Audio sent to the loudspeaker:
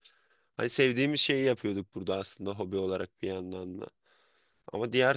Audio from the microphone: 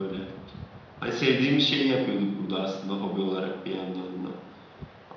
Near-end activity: none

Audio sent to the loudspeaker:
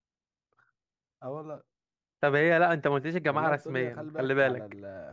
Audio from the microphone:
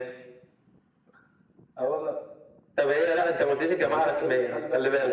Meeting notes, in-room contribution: none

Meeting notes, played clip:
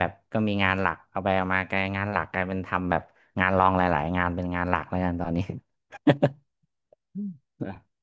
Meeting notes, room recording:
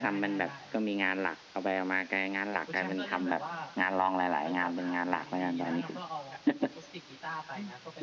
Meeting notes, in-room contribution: present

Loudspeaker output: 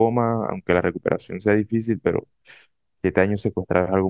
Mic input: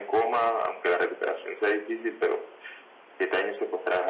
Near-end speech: none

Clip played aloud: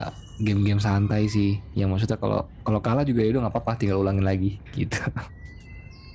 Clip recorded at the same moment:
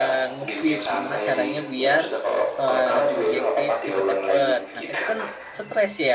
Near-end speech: present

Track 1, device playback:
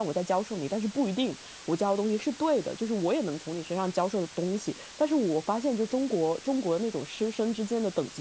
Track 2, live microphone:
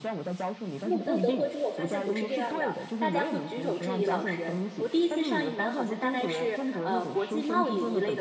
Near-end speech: present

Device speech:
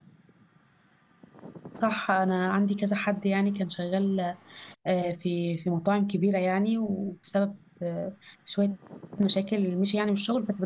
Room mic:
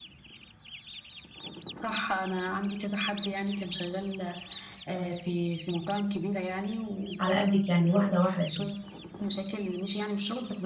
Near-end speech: present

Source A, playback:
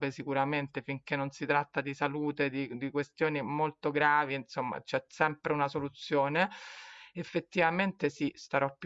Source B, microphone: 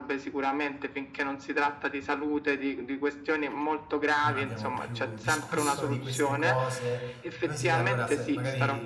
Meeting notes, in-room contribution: present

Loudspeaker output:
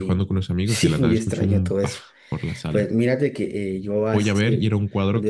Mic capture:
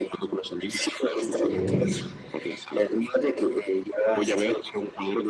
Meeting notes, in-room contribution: present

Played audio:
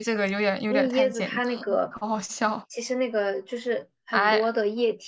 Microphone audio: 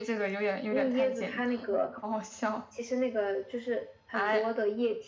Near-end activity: none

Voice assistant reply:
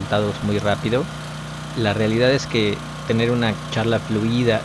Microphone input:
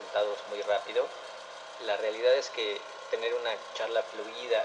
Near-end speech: none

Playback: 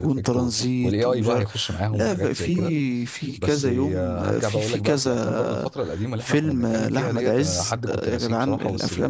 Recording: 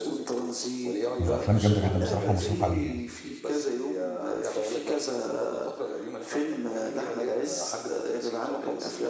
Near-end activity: present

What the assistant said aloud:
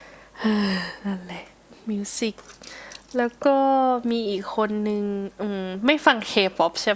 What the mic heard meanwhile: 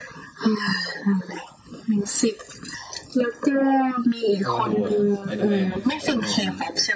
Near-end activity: present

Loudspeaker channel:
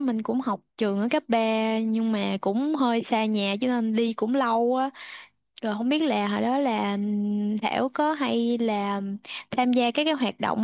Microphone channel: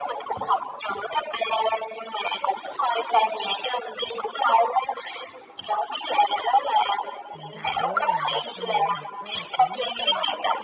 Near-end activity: present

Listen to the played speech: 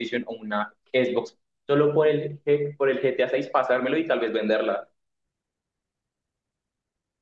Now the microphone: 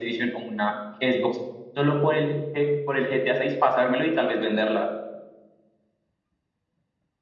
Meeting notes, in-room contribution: none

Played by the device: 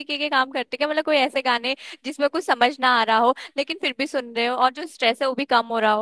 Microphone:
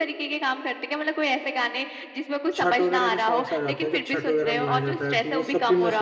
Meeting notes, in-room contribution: present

